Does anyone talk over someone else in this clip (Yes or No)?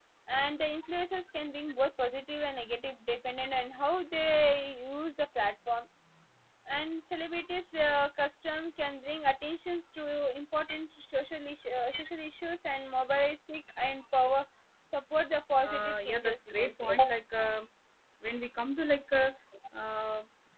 Yes